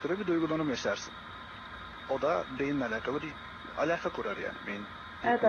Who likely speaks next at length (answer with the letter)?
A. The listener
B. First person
A